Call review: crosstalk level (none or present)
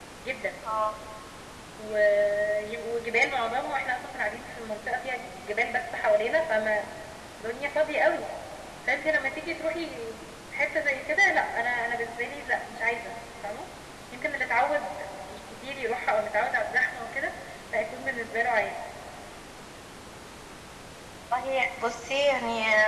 none